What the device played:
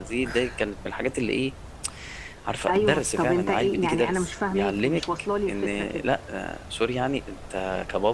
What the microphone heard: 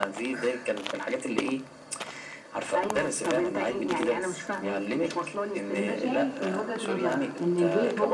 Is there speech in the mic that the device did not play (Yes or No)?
Yes